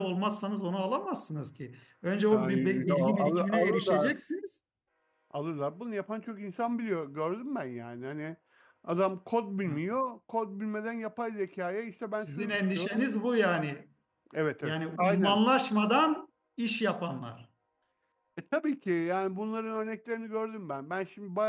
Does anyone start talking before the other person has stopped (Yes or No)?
Yes